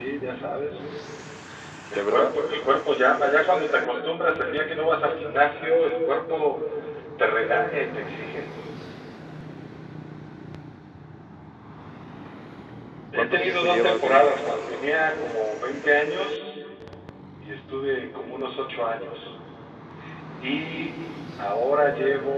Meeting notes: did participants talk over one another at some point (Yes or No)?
Yes